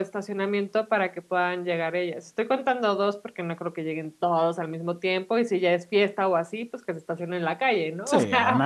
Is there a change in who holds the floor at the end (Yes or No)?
Yes